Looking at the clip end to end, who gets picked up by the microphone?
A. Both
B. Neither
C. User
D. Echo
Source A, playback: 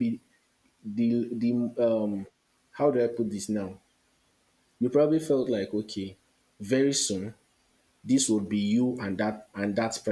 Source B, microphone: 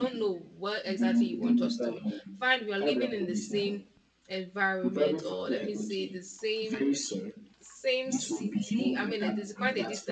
A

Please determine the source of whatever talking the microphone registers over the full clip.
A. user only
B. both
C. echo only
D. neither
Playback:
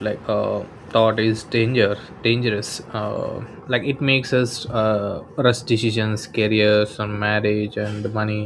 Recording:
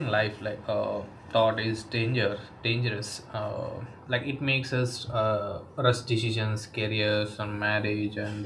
C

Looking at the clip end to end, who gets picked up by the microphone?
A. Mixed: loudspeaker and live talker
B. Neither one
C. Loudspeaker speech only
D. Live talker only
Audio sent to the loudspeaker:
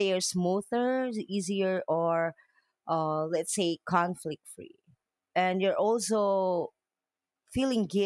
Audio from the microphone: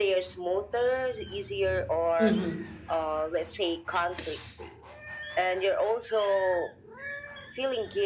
A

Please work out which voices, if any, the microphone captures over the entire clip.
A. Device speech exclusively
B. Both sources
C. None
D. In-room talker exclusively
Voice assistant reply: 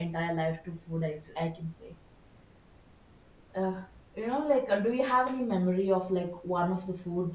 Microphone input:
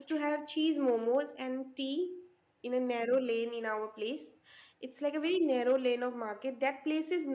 D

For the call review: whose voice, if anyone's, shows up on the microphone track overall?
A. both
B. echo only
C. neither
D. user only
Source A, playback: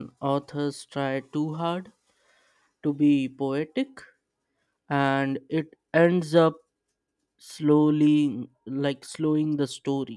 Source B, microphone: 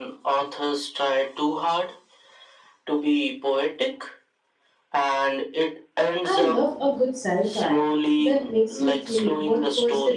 A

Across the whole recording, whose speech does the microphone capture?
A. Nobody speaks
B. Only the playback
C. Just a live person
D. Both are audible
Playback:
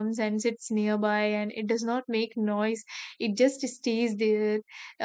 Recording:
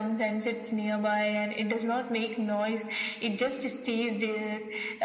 B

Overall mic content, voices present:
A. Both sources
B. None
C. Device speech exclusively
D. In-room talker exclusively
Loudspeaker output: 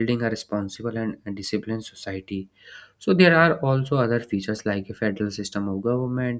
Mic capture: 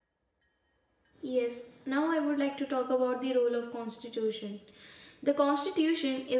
D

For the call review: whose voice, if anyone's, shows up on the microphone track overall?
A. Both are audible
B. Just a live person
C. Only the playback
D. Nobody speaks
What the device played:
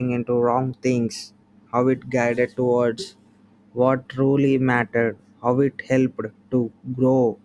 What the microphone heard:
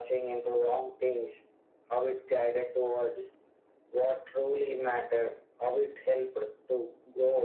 C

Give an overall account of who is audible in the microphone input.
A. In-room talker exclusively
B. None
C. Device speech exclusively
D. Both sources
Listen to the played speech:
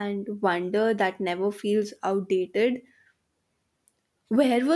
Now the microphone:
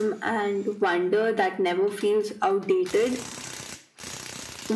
C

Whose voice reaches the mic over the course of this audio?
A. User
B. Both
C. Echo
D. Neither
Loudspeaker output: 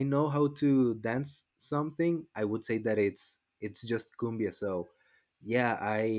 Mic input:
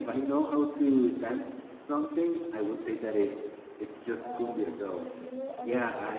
B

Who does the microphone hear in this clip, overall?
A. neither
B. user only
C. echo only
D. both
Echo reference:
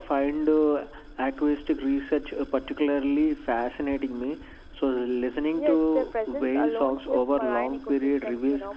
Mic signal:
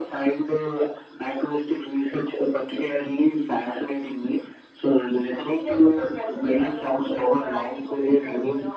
C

